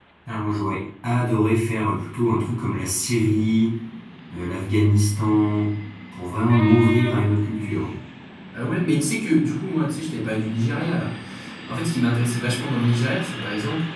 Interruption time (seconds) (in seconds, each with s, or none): none